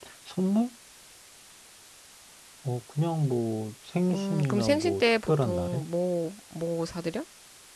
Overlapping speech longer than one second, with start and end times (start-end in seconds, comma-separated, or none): 4.1-5.8